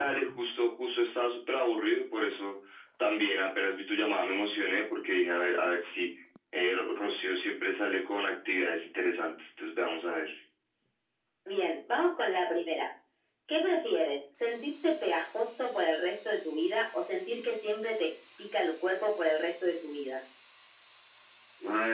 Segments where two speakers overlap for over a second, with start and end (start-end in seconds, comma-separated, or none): none